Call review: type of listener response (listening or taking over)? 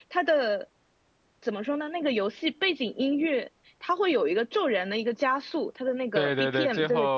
taking over